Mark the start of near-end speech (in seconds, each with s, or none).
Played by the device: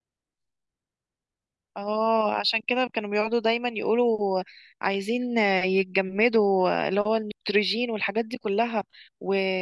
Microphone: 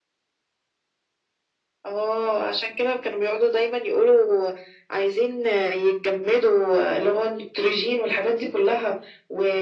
none